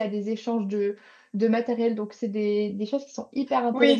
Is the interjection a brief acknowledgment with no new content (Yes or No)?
No